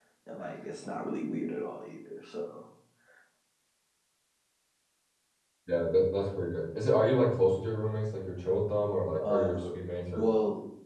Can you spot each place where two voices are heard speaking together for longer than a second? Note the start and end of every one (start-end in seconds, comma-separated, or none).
none